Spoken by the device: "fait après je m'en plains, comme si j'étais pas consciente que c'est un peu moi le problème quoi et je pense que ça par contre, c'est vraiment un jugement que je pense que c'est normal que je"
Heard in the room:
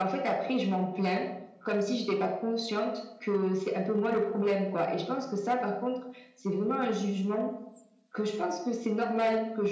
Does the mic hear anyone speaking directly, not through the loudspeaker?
No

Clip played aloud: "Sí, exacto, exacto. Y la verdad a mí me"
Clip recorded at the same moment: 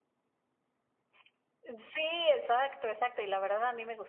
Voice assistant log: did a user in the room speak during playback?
No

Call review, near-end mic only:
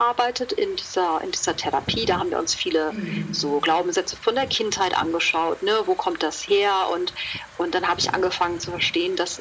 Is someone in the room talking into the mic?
Yes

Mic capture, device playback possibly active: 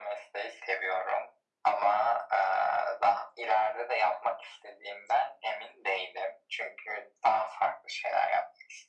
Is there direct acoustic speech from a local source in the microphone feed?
No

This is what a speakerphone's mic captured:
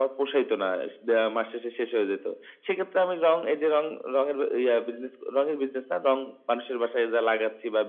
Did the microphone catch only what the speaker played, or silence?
Yes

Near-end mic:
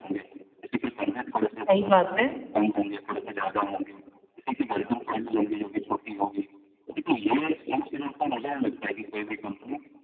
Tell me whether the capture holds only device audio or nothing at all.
No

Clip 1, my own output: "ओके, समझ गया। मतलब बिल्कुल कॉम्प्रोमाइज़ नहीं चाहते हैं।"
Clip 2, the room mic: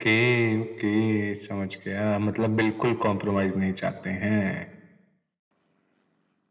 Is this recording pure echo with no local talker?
Yes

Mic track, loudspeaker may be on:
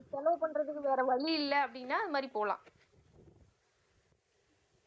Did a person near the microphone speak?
Yes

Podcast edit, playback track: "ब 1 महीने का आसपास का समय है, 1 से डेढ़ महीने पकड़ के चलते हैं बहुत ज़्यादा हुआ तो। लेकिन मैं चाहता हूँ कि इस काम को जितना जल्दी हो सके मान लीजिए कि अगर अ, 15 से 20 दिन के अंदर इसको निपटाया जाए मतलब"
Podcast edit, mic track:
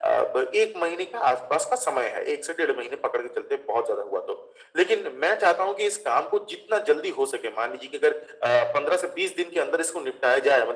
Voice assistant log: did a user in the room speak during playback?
No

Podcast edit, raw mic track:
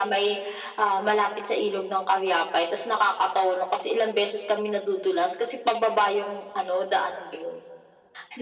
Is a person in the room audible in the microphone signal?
No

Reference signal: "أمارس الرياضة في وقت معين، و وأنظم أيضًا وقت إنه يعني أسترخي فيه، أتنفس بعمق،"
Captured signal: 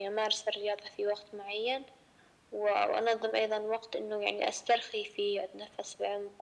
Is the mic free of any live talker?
Yes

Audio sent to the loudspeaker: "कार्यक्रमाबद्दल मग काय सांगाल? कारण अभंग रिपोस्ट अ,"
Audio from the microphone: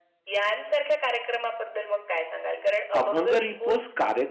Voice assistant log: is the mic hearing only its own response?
No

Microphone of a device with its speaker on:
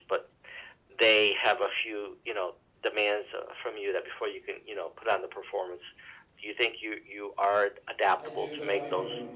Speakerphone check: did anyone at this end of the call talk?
Yes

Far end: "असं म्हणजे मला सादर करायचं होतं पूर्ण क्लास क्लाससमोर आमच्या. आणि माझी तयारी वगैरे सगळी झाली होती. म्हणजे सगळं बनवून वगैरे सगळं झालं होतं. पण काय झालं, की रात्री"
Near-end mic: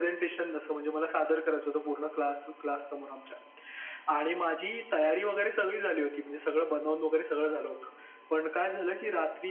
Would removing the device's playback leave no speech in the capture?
Yes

